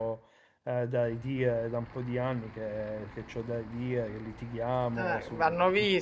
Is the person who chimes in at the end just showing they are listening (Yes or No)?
No